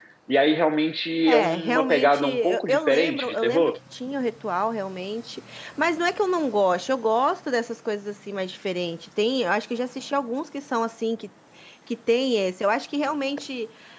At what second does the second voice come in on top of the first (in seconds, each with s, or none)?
1.3 s